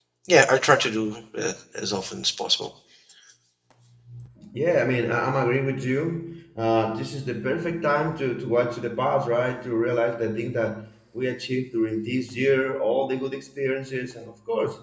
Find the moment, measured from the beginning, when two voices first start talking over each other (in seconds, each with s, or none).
none